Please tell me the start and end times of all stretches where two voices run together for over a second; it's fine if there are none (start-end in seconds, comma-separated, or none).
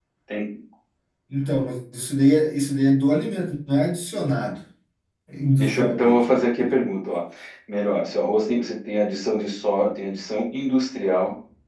5.6-6.8